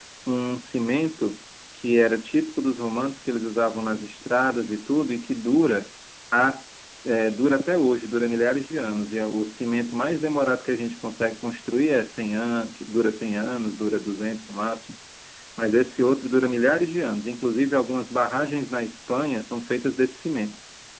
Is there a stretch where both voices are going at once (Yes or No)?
No